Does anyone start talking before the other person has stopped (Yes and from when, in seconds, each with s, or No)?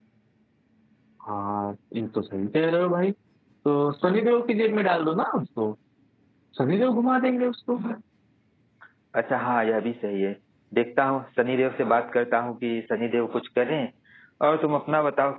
No